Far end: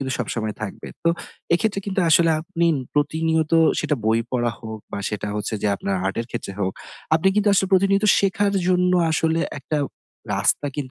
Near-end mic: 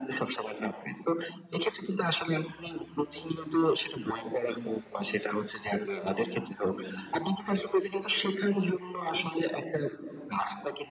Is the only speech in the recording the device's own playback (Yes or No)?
Yes